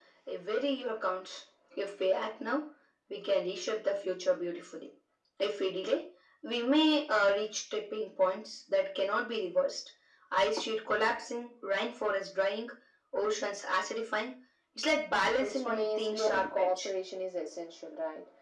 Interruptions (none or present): present